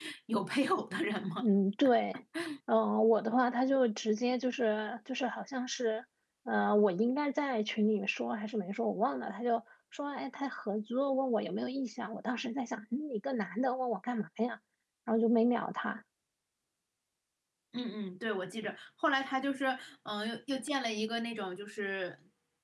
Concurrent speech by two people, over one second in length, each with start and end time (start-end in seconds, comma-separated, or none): none